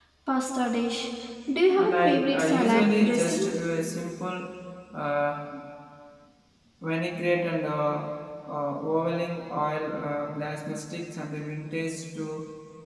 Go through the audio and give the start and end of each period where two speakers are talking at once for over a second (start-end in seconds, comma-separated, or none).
1.8-3.5